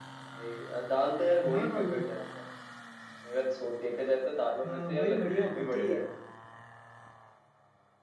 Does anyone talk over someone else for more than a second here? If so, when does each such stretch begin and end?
4.7-6.0

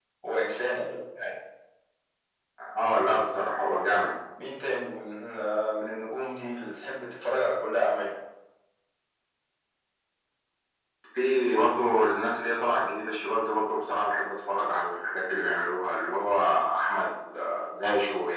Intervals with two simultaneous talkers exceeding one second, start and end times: none

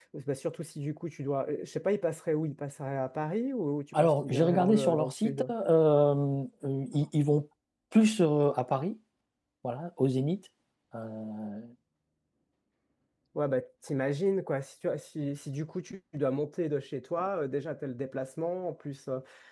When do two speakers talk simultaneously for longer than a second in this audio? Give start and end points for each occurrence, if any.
3.9-5.4

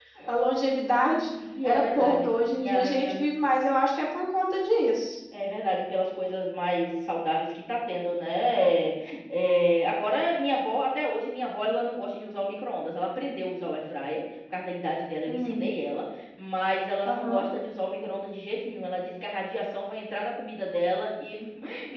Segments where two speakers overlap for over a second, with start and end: 1.6-3.1

